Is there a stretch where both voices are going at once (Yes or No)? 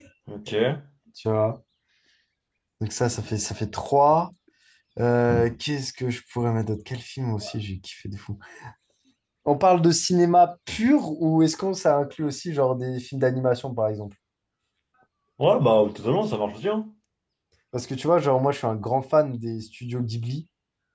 No